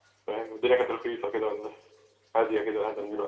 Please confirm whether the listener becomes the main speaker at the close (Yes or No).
Yes